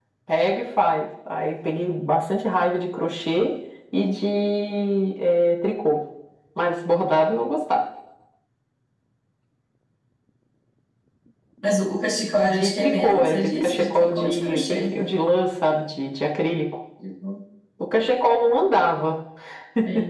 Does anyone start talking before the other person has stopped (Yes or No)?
Yes